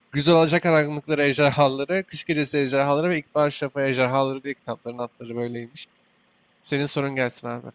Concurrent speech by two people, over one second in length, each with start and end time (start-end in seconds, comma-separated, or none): none